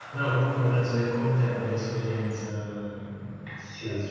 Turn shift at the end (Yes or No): Yes